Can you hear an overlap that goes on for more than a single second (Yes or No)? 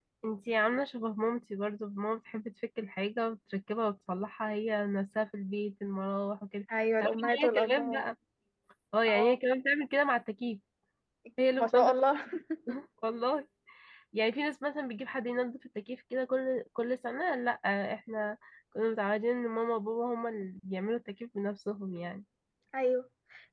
Yes